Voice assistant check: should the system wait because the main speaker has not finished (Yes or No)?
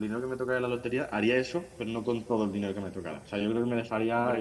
Yes